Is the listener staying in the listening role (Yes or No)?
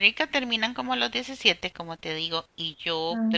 Yes